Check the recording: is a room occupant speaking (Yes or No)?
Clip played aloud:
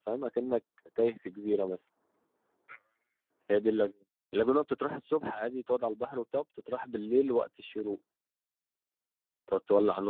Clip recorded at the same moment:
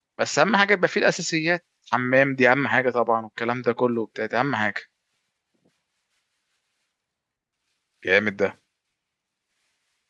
Yes